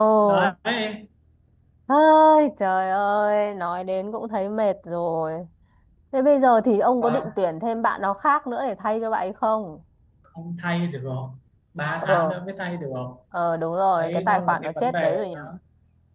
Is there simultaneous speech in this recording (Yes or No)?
Yes